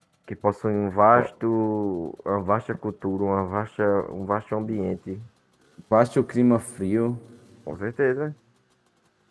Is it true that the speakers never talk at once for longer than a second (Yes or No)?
Yes